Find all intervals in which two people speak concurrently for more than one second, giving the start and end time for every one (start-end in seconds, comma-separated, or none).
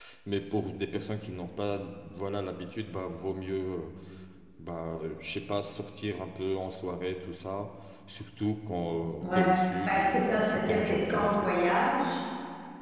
9.9-11.5